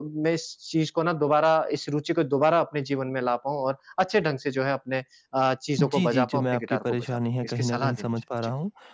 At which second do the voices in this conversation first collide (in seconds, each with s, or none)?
5.8 s